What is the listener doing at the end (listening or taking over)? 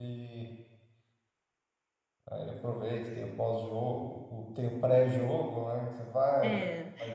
taking over